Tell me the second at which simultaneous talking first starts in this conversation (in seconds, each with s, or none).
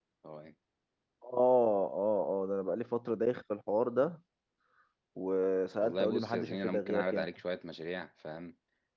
5.8 s